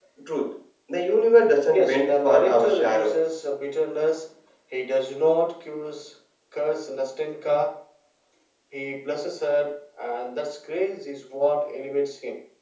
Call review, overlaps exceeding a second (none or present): present